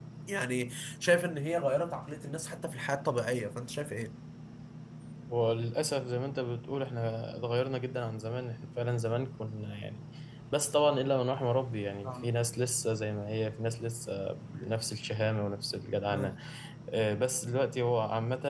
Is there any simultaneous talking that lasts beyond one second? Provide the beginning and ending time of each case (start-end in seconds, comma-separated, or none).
none